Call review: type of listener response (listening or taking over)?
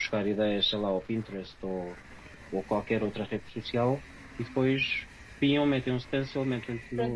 taking over